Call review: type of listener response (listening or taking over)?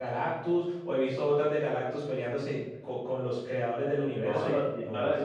taking over